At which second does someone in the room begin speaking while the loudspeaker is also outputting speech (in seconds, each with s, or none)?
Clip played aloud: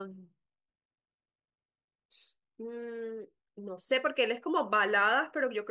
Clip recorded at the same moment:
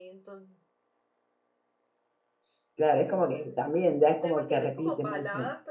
2.8 s